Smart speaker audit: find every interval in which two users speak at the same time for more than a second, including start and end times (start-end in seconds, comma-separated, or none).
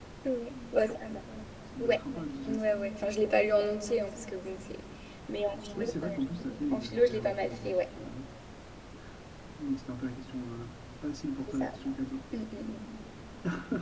5.8-7.7